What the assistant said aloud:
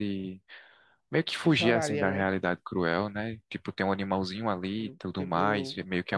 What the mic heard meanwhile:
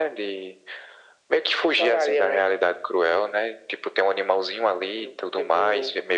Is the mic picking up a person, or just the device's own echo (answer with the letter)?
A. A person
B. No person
B